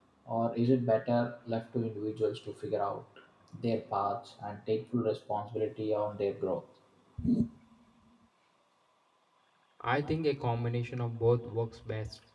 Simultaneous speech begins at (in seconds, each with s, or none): none